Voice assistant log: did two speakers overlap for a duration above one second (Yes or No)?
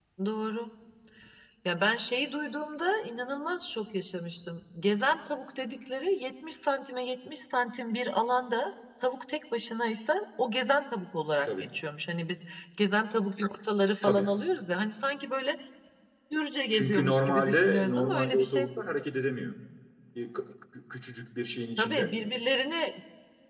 Yes